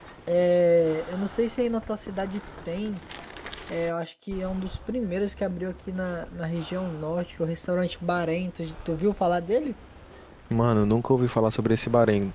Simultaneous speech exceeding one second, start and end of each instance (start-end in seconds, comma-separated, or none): none